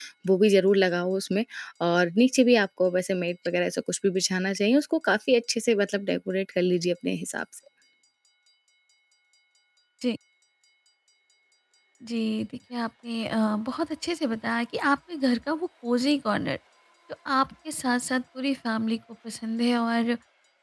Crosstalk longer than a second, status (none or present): none